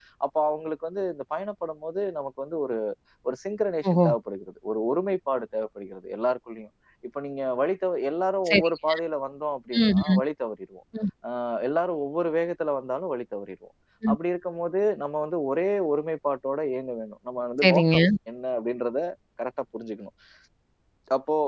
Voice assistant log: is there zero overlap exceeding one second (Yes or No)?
Yes